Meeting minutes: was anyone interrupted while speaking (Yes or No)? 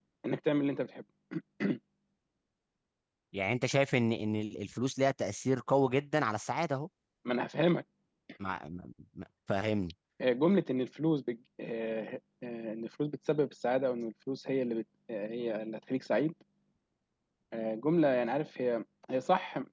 No